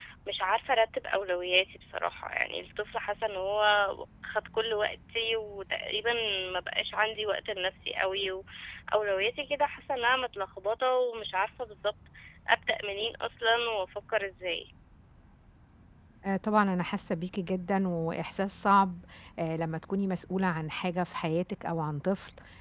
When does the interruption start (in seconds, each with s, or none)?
none